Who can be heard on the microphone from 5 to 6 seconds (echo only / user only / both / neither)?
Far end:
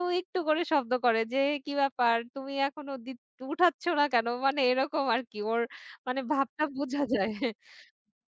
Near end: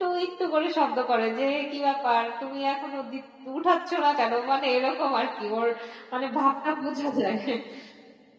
echo only